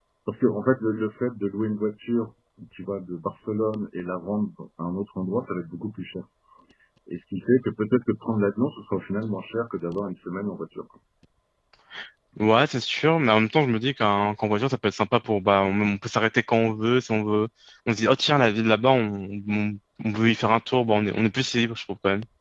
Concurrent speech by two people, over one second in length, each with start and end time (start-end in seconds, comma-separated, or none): none